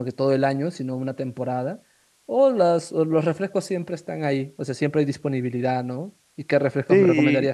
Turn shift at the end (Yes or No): No